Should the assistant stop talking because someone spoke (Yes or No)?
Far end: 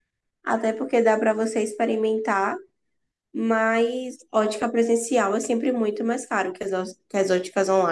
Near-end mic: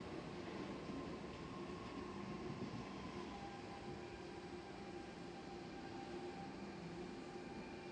No